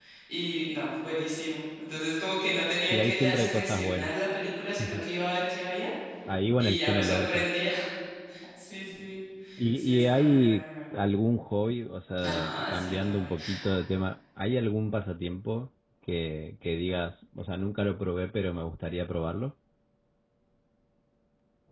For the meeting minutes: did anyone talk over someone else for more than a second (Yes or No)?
Yes